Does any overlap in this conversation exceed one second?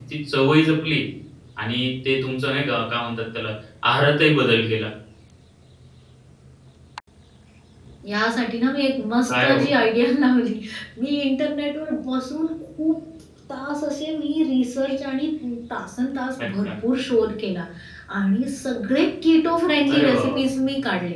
No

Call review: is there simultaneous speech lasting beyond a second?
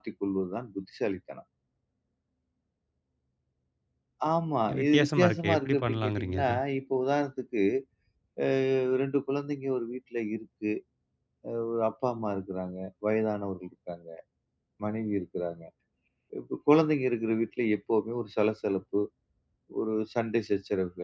Yes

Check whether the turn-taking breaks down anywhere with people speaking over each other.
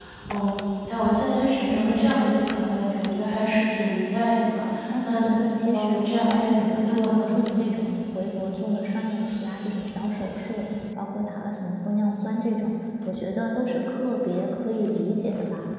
Yes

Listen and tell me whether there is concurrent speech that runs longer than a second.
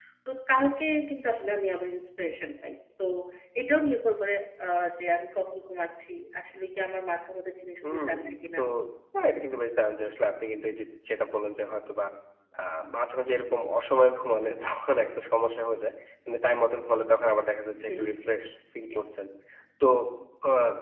No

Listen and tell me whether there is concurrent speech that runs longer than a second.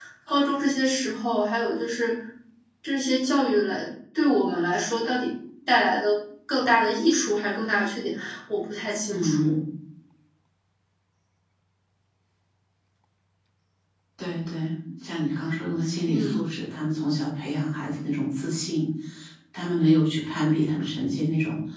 No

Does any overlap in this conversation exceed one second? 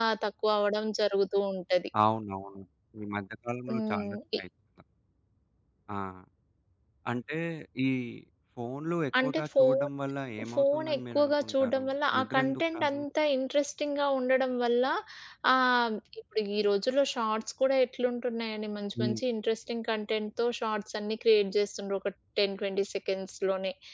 Yes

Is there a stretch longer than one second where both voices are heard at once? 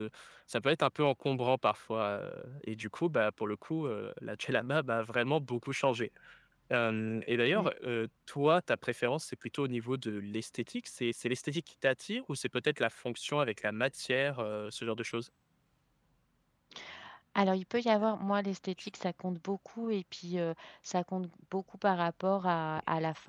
No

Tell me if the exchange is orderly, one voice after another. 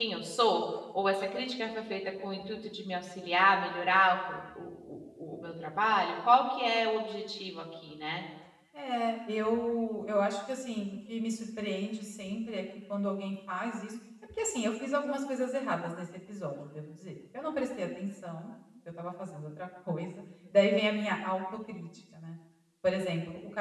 Yes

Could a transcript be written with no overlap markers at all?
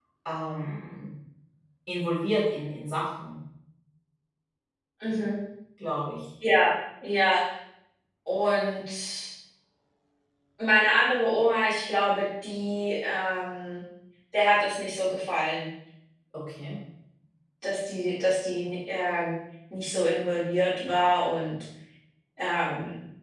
Yes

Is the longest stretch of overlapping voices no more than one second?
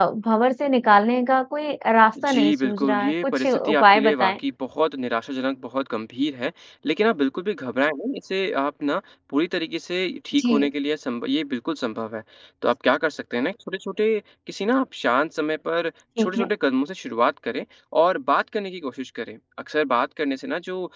No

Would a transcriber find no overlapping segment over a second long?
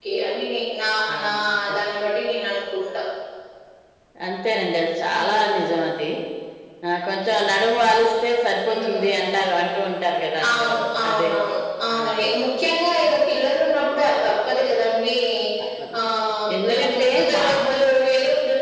No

